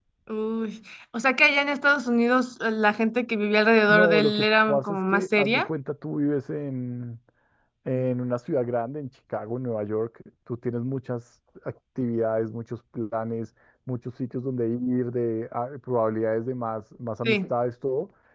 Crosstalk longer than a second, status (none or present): present